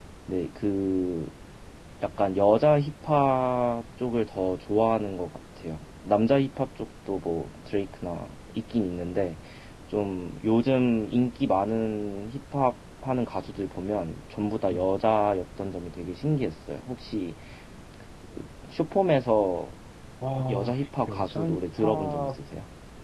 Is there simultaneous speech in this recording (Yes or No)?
Yes